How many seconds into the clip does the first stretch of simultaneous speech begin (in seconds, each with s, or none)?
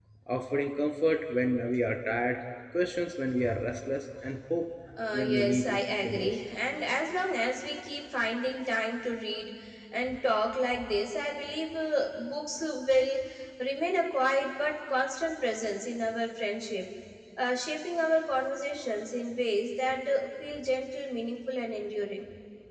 5.1 s